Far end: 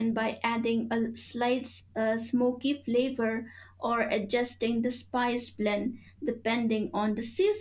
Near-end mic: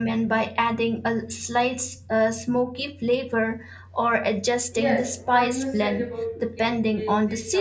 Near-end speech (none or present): present